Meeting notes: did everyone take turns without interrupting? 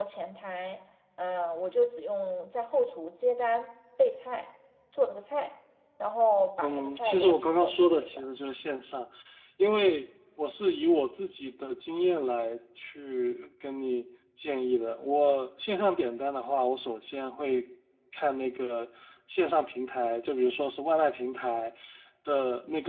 No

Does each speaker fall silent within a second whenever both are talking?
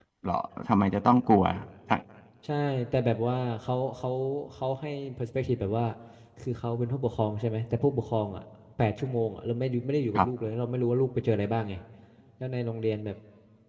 Yes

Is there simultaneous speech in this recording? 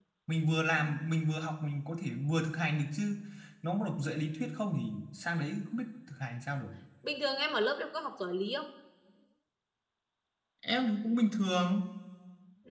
No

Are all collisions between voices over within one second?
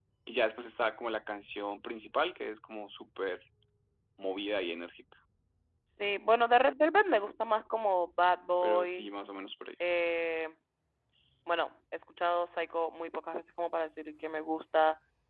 Yes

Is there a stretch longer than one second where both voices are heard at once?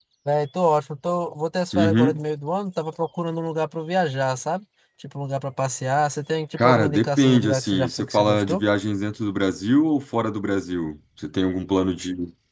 Yes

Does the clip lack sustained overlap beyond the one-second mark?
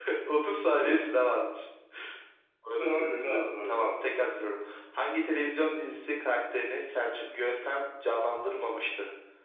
No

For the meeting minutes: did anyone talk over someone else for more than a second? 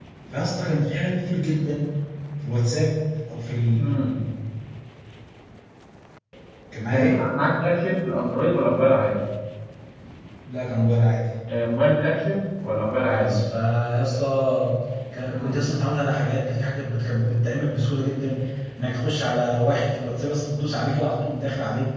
No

